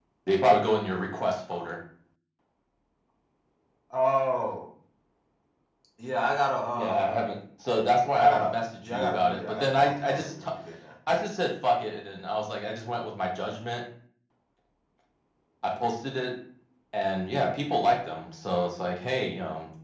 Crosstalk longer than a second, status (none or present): present